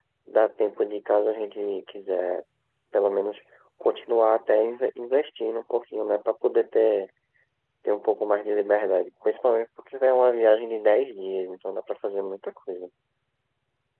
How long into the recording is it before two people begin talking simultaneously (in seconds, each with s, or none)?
none